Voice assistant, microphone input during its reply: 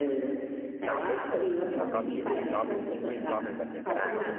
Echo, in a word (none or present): present